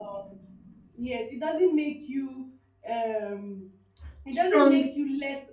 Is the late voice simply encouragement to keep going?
Yes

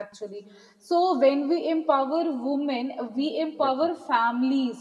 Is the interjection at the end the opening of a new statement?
No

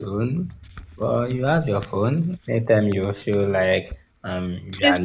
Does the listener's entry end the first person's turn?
No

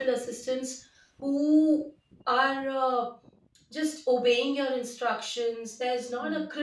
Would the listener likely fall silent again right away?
Yes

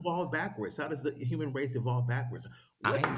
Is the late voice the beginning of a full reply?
No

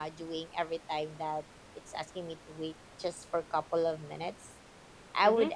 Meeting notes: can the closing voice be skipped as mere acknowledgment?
Yes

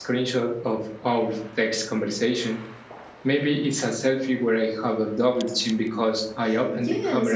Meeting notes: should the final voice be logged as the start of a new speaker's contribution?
Yes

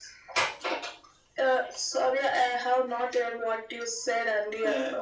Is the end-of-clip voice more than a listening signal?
Yes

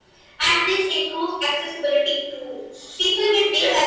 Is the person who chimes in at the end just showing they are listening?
Yes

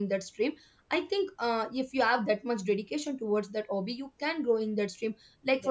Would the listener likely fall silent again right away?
Yes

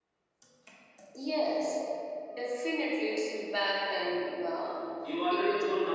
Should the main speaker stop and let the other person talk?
Yes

